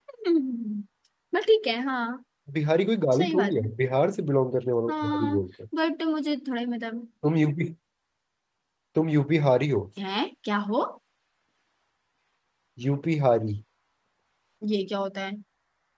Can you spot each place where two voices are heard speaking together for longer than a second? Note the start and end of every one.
none

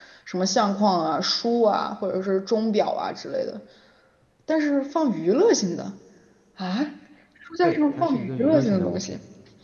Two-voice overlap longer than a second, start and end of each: 7.6-9.0

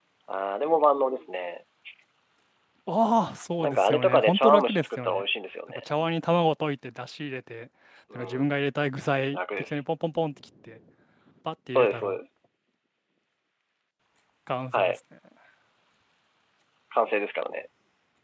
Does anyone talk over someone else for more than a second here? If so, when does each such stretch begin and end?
3.6-5.2

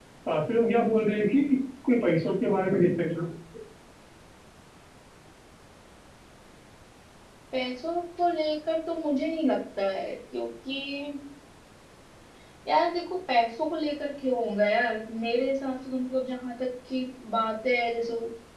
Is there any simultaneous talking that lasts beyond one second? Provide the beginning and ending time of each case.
none

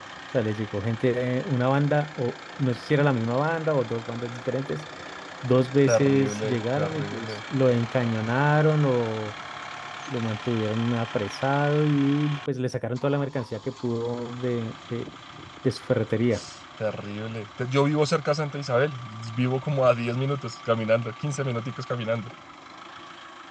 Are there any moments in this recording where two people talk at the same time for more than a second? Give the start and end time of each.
5.9-7.3

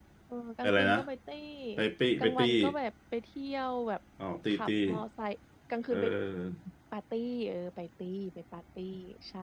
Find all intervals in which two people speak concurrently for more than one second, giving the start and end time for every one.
none

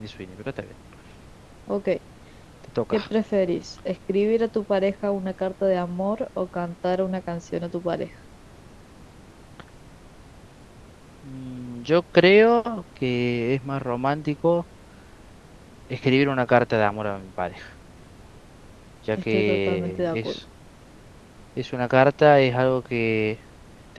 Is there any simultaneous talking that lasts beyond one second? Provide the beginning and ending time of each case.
19.2-20.4

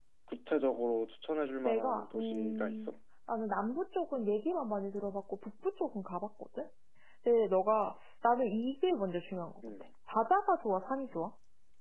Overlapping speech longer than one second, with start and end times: 1.6-2.9

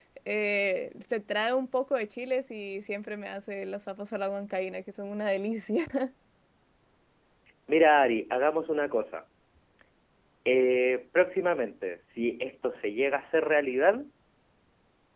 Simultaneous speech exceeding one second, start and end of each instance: none

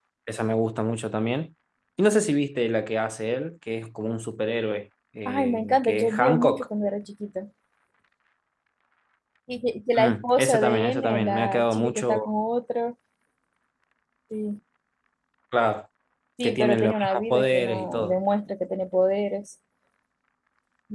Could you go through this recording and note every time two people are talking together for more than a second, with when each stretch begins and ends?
5.2-6.7, 9.9-12.3, 16.4-18.1

